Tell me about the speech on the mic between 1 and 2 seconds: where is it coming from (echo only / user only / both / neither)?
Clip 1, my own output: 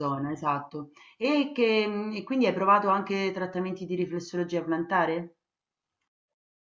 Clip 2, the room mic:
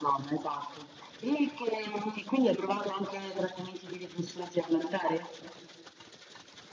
echo only